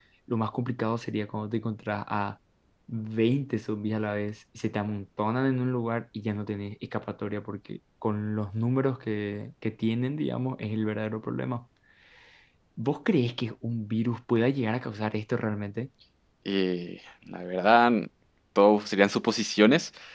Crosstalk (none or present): none